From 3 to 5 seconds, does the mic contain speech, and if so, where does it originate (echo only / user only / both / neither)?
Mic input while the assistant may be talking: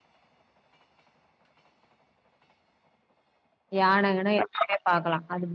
user only